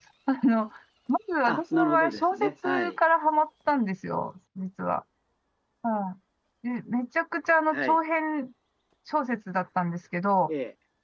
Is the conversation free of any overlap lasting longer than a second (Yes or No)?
No